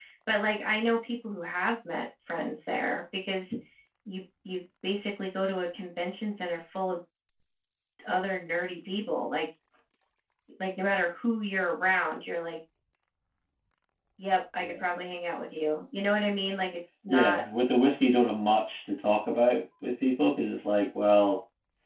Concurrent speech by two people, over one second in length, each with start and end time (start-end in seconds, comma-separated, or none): none